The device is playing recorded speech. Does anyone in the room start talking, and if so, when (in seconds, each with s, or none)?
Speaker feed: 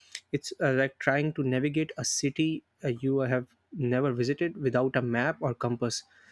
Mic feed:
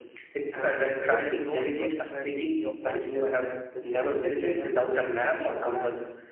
0.5 s